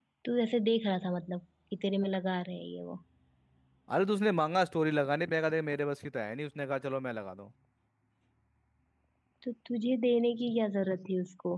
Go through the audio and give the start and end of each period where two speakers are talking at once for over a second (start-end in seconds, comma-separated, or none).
none